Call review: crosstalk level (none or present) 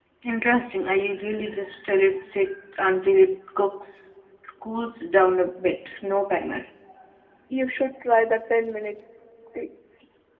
none